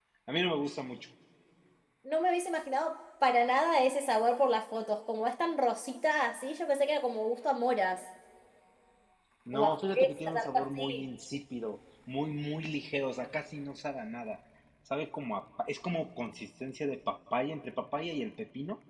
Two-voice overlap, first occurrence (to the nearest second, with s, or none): 10 s